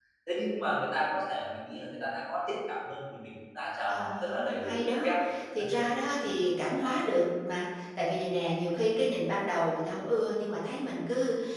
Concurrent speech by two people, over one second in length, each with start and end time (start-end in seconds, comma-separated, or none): 3.9-5.1